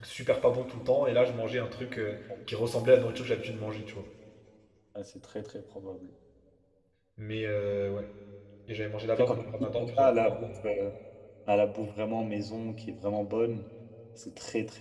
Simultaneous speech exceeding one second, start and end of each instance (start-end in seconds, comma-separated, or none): 9.2-10.5